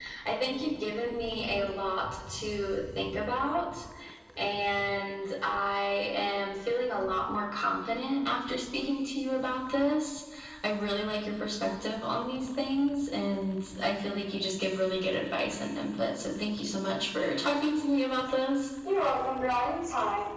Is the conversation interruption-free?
Yes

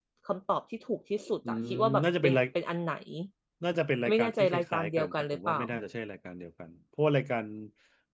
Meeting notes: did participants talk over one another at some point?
Yes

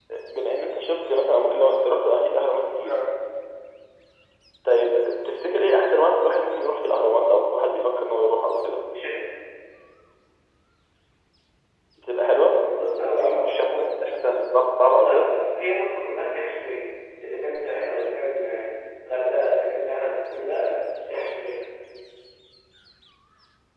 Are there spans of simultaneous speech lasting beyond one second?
No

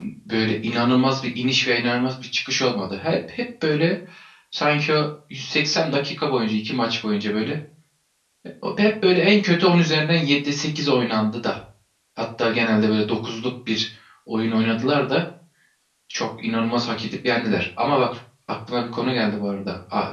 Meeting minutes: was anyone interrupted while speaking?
No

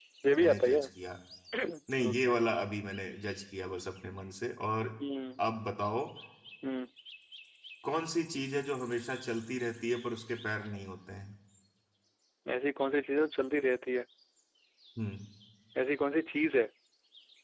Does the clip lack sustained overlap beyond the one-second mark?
Yes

